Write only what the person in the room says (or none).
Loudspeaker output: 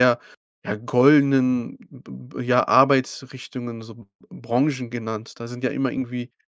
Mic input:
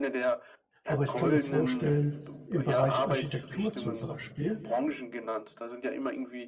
aber ich kann mir vorstellen, im Bereich Architektur zum Beispiel